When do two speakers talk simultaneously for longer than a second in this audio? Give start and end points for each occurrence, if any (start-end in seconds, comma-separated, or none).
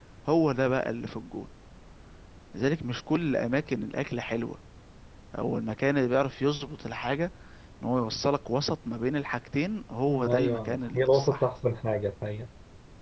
10.1-11.5